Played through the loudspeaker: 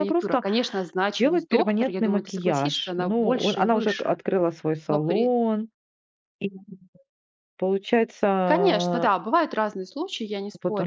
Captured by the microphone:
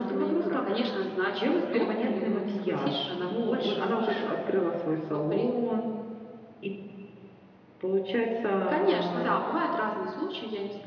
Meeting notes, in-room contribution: none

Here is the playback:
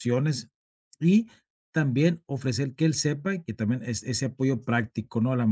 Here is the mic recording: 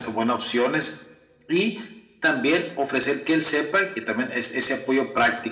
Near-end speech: none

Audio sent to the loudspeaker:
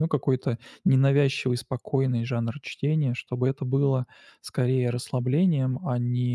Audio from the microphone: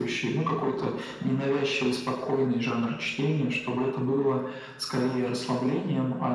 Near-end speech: none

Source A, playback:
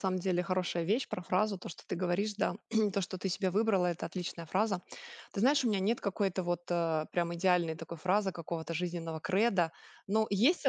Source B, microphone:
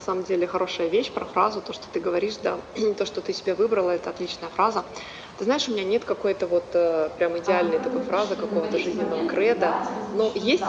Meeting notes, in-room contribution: present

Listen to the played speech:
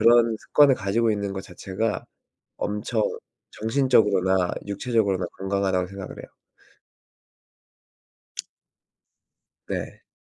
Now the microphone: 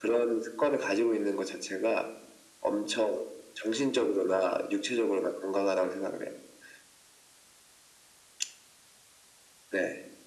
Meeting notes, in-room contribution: none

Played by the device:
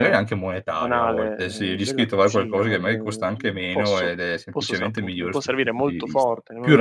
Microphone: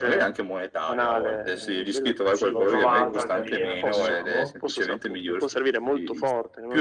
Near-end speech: present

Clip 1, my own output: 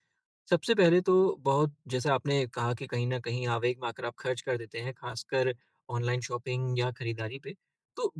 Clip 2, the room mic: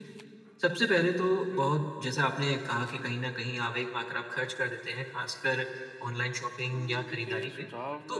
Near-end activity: present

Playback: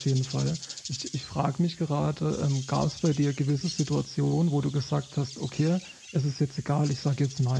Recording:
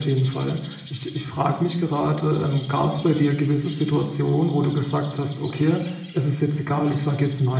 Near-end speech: none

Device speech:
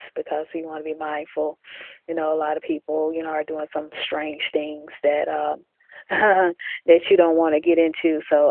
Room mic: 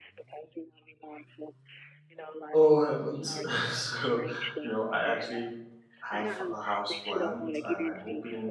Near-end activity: present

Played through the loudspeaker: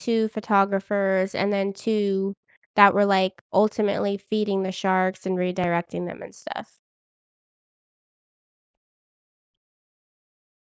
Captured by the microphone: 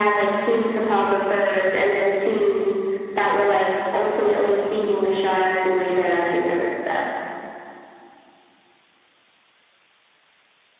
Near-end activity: none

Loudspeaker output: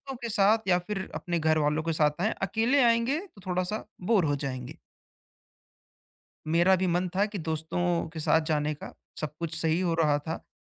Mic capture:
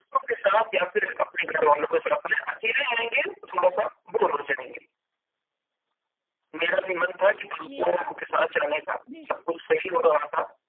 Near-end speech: present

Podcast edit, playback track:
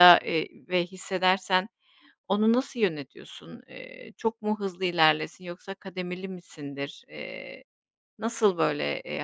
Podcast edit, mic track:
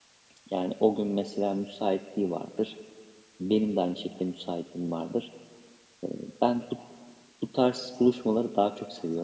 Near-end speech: present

